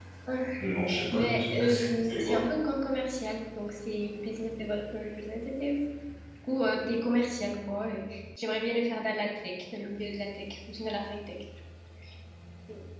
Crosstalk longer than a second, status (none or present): present